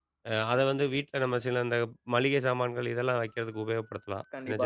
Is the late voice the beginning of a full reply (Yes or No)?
Yes